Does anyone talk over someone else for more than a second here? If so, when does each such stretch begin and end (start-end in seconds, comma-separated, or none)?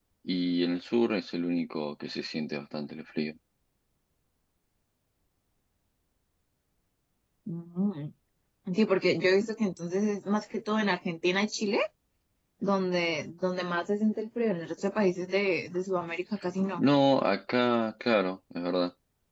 none